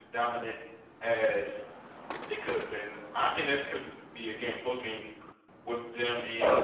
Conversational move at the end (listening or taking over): listening